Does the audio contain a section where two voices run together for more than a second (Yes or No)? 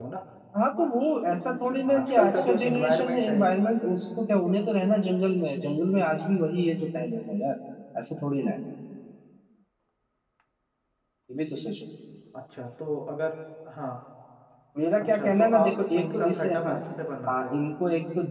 Yes